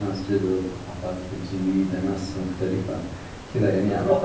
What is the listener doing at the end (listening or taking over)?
taking over